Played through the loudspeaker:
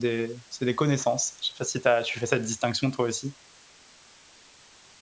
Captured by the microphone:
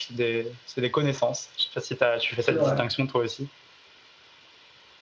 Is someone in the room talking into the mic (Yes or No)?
Yes